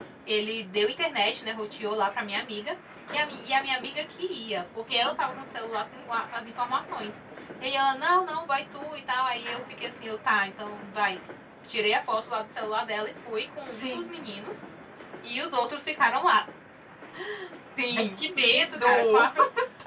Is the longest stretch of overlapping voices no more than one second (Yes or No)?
No